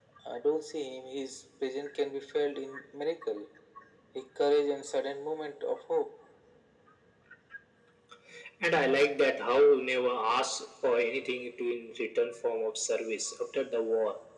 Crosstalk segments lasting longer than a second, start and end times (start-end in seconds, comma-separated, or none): none